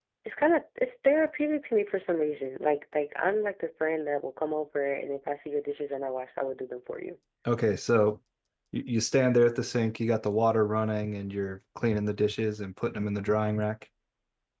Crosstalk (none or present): none